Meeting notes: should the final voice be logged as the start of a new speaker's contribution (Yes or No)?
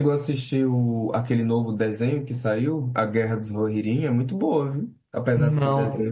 Yes